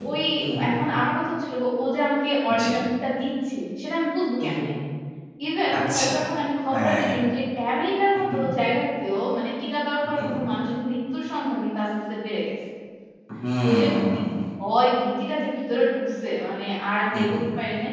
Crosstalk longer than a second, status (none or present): none